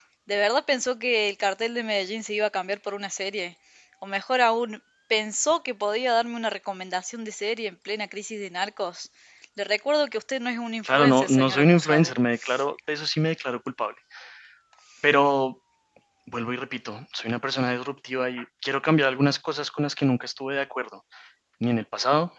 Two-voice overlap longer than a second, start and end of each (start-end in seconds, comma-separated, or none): 10.8-12.1